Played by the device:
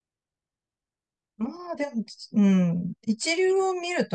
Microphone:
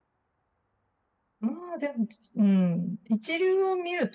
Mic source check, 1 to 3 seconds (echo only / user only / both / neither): echo only